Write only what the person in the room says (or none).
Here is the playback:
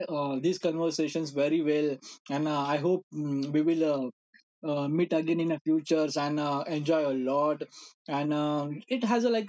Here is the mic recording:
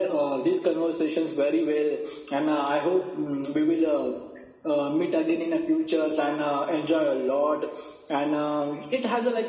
none